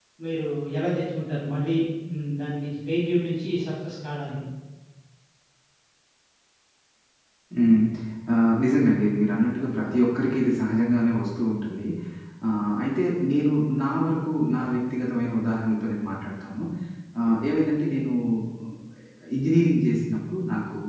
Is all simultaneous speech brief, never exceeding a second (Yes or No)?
Yes